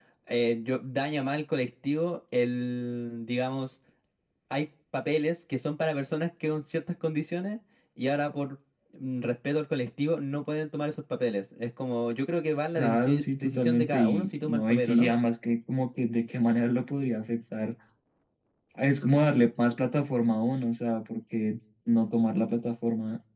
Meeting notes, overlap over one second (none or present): present